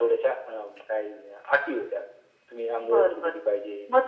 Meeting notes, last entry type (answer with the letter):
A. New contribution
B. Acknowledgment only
A